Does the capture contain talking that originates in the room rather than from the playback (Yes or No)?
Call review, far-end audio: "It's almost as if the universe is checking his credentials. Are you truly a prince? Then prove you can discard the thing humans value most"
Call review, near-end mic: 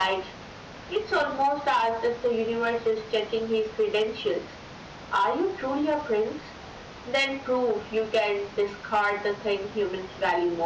No